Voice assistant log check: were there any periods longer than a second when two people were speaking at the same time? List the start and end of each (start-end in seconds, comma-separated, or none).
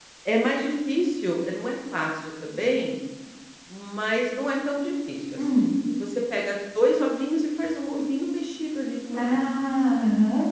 none